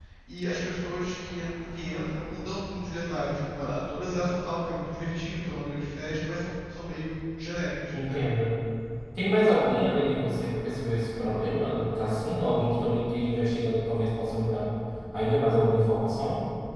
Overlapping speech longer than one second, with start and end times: none

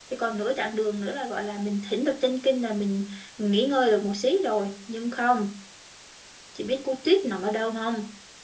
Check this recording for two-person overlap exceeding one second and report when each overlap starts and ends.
none

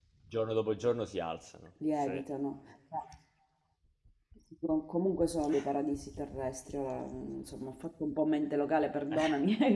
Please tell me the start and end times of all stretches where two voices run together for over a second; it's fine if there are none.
none

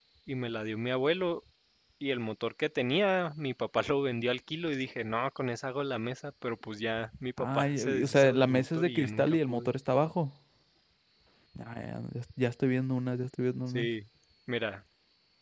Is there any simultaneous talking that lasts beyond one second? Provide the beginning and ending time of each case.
7.4-9.7

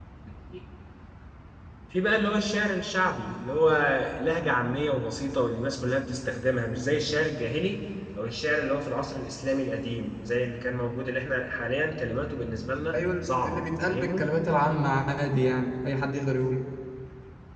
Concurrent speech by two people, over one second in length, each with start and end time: 12.9-14.4

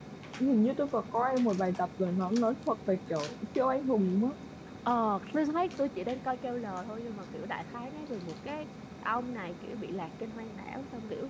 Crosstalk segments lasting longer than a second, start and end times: none

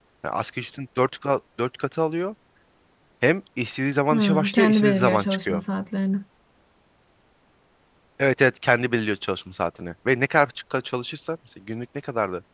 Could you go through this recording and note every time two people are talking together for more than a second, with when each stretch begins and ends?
4.1-5.6

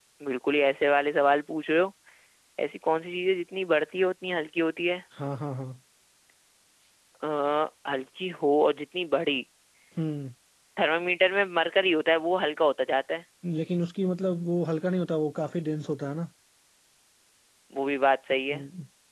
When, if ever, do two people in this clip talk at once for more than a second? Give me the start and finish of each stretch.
none

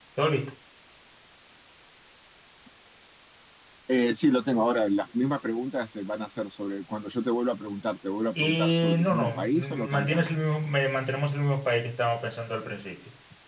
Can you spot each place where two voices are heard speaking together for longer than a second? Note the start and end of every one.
8.3-10.3

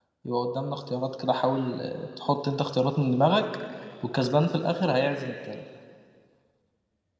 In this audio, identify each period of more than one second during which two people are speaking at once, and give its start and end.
none

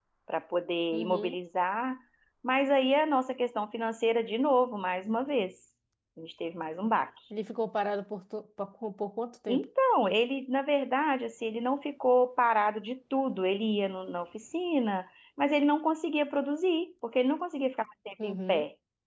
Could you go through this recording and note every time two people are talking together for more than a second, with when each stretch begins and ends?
none

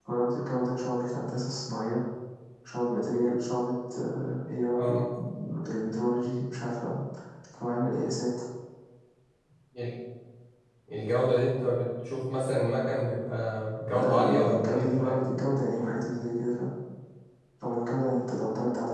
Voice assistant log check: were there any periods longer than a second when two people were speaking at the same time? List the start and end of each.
13.9-15.2

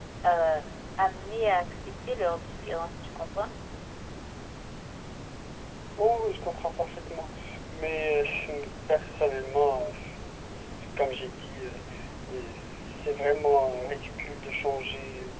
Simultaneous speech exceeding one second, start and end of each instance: none

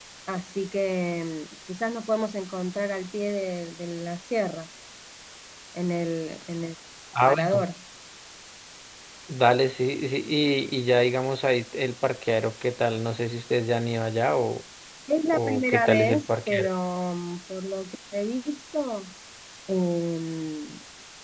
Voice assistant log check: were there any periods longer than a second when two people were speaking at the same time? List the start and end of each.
15.3-16.7

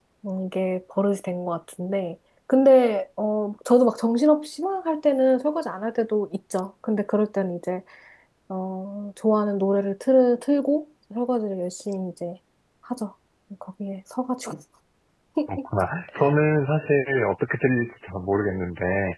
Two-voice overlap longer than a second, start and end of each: none

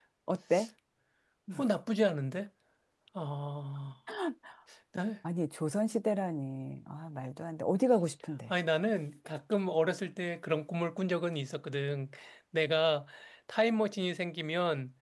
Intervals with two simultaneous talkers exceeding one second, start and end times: none

